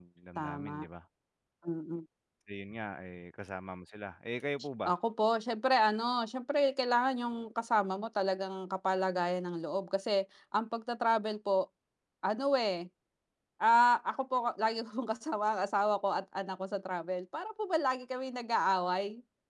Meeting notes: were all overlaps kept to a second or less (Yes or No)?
Yes